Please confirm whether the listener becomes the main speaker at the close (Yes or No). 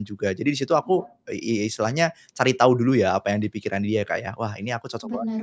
Yes